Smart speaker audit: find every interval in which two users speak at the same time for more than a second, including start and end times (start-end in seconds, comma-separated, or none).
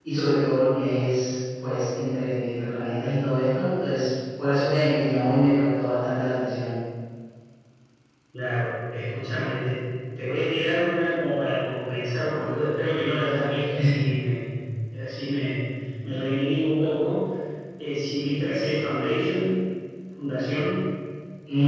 none